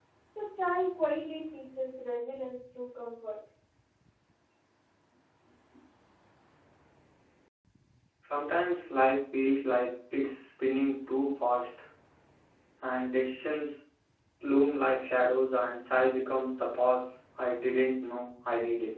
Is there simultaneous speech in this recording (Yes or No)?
No